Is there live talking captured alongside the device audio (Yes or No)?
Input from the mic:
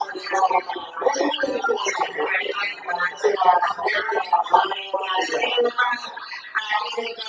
No